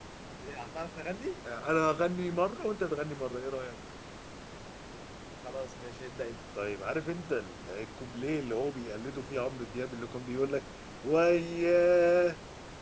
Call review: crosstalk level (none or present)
none